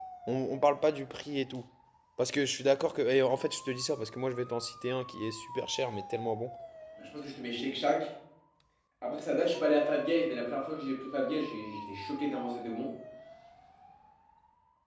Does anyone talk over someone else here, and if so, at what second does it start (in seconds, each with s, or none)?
none